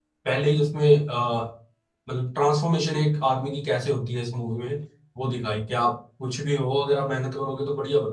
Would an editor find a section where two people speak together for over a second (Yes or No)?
No